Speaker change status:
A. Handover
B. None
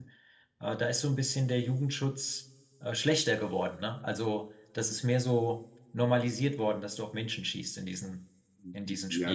A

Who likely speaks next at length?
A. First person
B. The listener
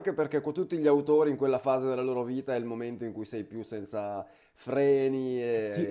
B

